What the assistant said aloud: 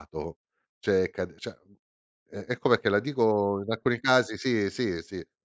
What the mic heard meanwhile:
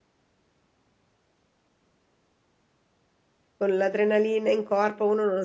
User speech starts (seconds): 4 s

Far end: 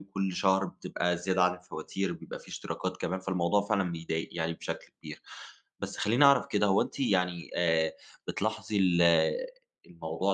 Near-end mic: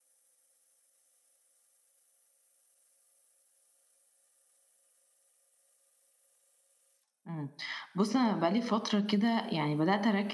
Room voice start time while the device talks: 7 s

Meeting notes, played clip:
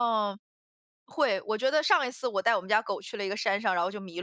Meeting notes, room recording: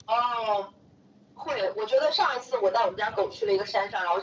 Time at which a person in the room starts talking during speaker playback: none

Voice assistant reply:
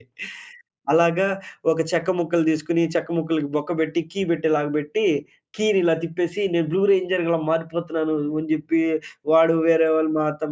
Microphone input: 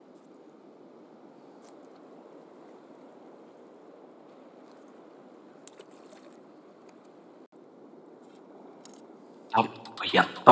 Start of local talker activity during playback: 10 s

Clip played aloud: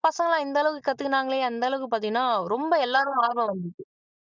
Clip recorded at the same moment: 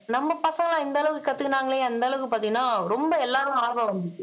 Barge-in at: none

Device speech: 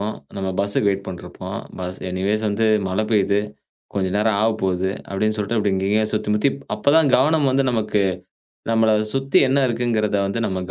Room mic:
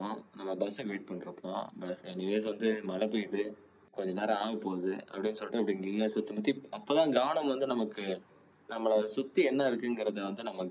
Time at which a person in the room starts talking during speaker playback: none

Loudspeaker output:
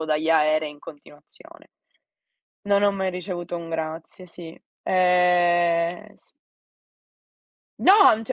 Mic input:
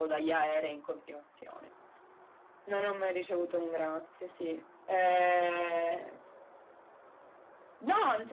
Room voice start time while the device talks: none

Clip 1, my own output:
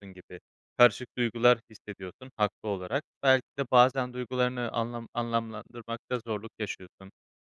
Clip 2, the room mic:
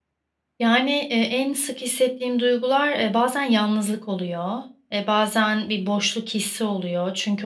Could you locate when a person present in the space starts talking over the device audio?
1 s

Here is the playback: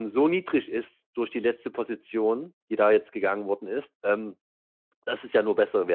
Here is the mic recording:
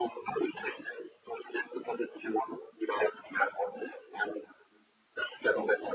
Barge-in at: none

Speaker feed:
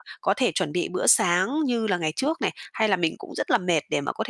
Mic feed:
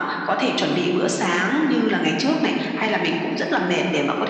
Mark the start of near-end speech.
none

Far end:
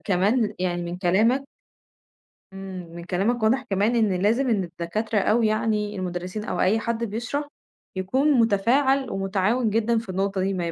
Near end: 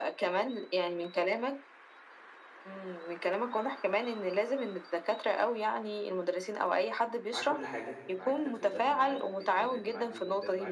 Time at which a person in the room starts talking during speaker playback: 7 s

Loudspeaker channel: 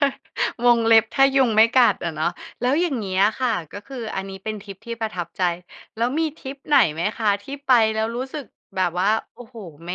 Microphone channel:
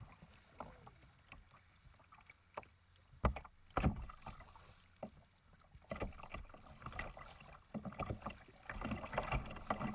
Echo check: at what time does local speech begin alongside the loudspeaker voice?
none

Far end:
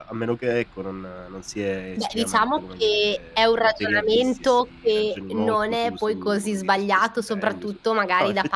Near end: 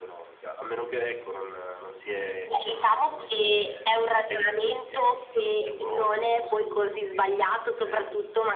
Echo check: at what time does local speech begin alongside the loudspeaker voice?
none

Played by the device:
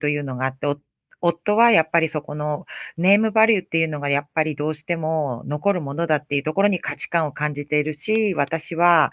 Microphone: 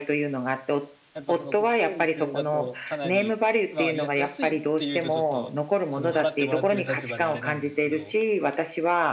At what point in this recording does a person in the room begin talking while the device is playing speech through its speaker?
1 s

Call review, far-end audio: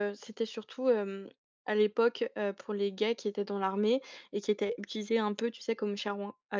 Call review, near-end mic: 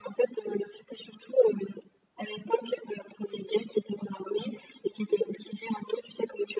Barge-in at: none

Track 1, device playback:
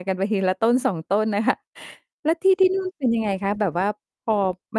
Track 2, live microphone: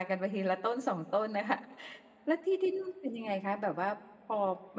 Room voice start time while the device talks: none

